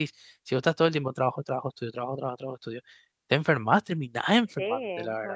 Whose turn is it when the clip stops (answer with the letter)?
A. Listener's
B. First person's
A